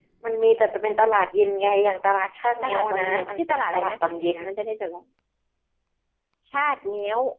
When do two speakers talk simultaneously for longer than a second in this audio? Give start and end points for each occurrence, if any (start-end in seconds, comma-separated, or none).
2.6-4.0